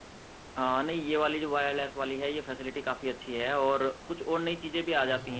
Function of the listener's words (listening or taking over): listening